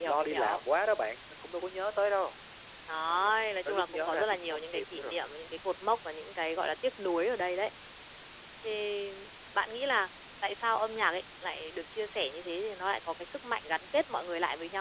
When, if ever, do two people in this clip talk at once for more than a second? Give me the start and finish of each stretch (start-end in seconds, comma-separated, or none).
3.1-5.1